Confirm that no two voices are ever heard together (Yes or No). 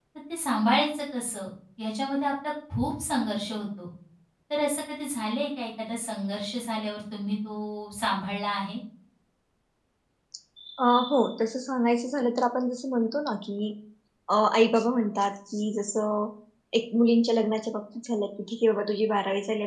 Yes